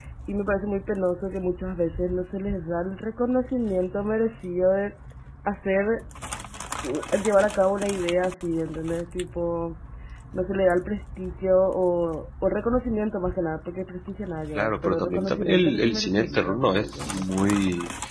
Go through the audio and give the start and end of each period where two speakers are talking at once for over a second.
14.6-17.6

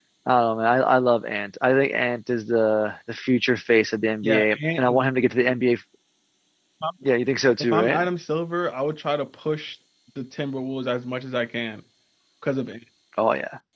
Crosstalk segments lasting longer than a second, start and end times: 4.2-5.6

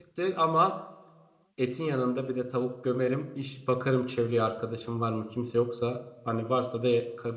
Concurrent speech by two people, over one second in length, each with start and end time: none

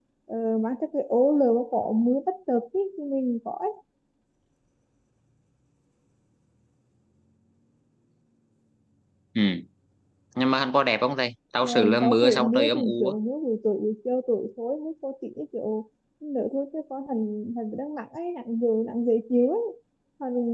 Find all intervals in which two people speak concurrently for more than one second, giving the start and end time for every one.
11.6-13.1

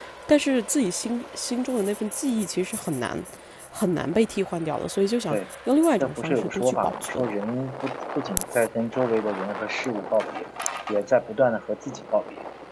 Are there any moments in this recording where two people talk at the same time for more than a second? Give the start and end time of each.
6.0-7.2

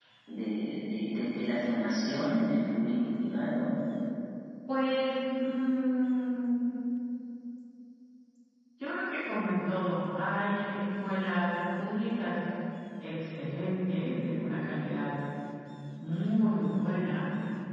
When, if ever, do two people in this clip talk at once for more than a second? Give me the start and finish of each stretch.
none

